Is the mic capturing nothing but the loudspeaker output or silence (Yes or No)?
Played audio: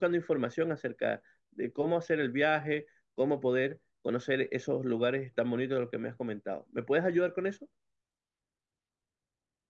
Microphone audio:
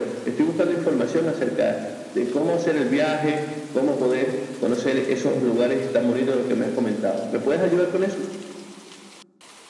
Yes